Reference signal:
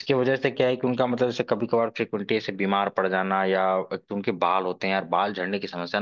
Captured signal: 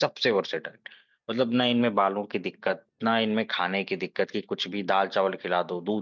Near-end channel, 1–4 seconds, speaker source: user only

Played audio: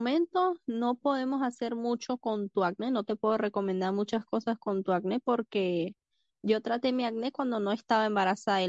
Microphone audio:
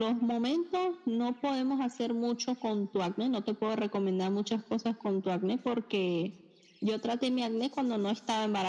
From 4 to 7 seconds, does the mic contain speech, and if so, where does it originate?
echo only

